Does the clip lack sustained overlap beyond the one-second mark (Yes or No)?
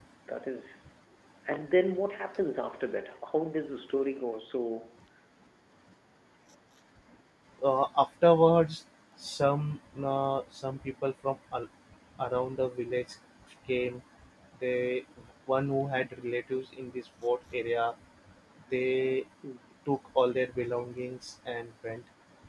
Yes